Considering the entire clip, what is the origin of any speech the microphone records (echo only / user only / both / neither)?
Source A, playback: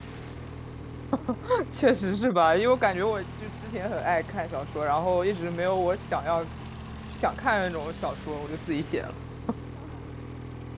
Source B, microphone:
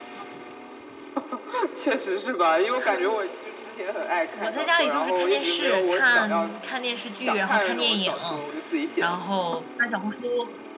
both